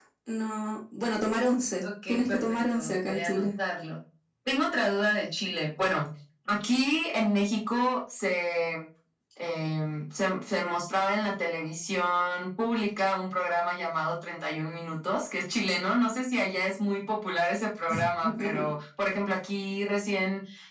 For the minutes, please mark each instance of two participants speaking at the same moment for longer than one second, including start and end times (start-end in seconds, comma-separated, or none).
1.8-3.5